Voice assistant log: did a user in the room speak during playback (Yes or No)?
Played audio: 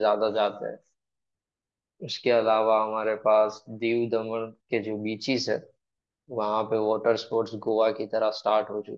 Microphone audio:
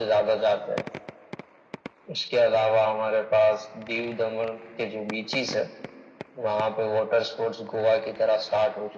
No